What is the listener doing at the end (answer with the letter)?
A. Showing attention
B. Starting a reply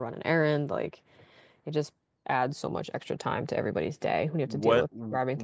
B